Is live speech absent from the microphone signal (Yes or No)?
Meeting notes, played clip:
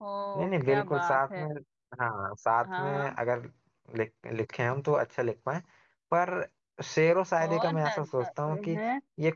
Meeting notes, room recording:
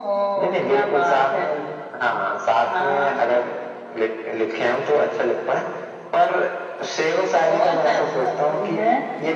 Yes